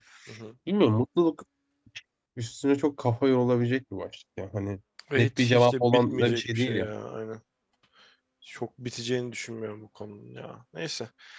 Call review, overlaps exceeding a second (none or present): present